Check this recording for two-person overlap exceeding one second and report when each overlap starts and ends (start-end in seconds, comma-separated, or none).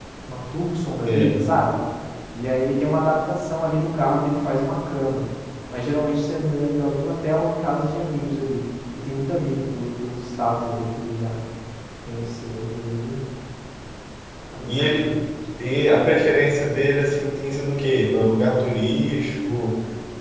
none